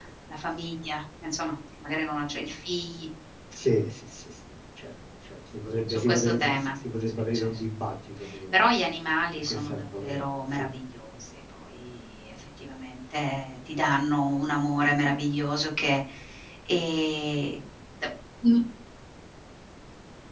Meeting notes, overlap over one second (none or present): present